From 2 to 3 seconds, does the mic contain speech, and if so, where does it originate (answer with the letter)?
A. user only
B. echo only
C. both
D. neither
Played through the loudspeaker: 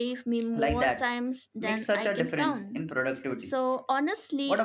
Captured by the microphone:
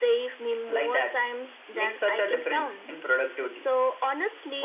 B